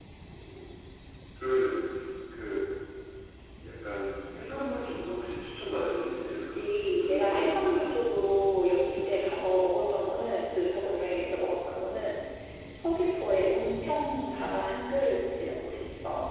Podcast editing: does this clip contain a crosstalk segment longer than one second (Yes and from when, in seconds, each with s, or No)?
Yes, from 6.2 s